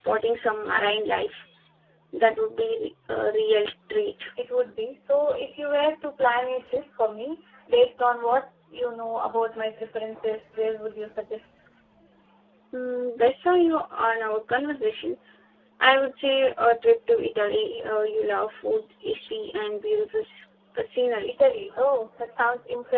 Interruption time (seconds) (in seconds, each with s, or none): none